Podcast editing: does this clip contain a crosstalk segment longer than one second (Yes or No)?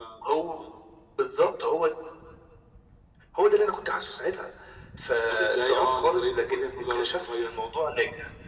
Yes